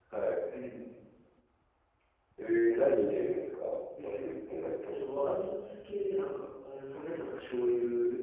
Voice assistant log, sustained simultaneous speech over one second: none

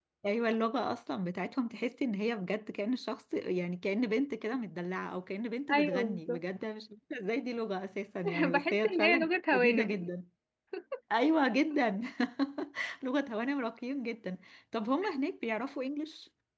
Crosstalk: present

